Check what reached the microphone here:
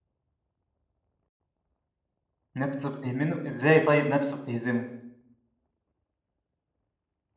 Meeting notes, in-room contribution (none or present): present